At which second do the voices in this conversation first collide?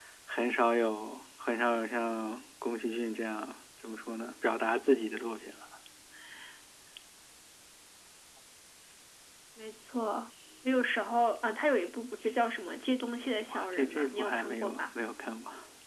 13 s

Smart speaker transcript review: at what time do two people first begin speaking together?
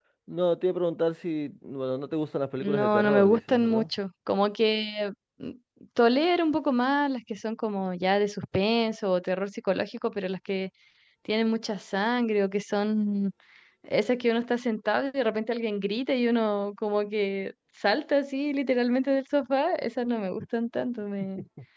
3 s

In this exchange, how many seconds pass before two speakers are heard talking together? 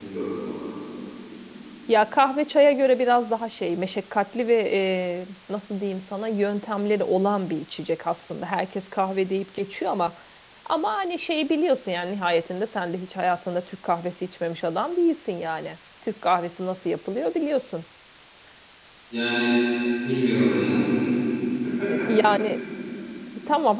none

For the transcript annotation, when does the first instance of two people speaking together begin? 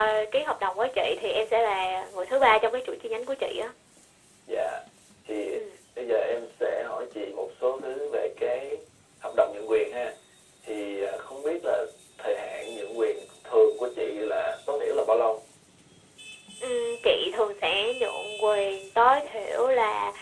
none

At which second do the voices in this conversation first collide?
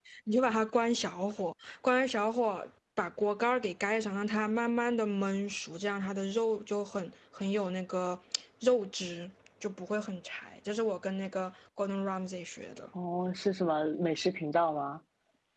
none

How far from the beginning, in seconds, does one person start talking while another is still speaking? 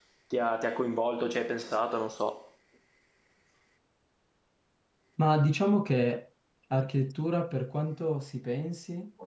none

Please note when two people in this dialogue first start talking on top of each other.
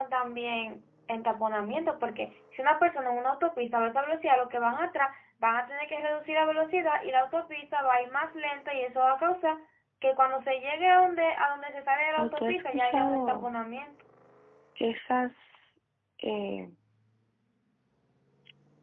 12 s

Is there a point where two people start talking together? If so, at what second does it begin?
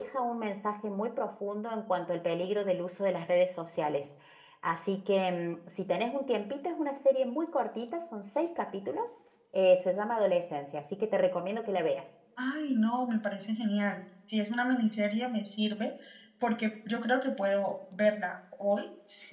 none

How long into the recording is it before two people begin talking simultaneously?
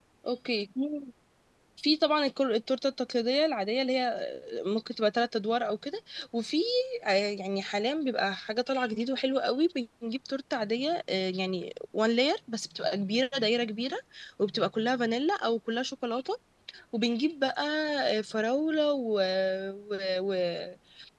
none

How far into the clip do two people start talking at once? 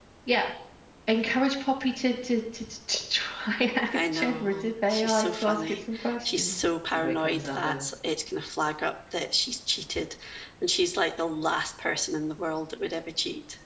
4 s

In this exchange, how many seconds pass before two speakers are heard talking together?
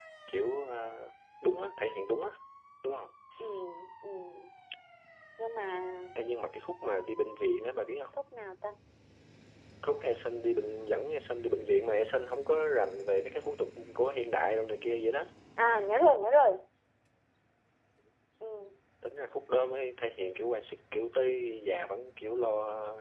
none

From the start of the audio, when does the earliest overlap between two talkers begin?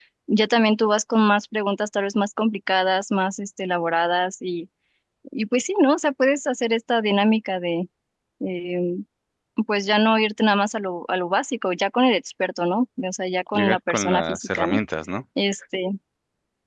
14 s

